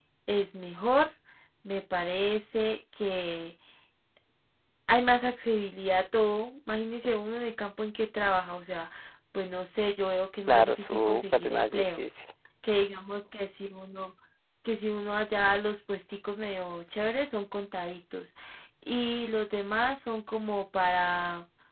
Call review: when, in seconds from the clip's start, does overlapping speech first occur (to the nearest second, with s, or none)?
10 s